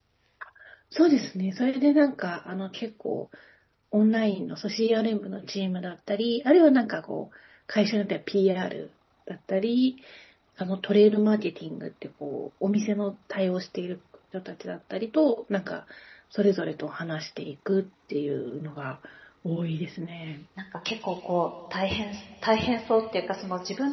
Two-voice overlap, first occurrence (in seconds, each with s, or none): none